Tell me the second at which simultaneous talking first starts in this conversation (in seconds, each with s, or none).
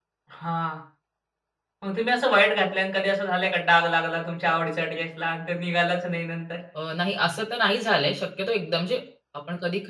none